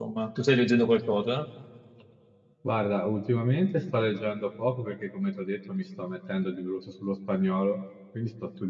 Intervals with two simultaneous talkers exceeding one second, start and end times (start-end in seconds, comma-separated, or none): none